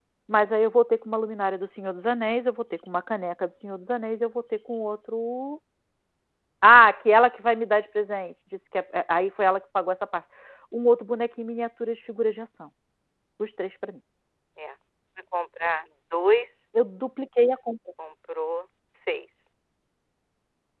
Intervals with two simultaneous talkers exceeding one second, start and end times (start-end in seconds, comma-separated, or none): none